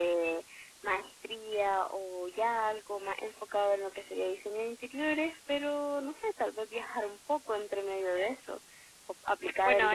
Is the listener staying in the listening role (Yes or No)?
No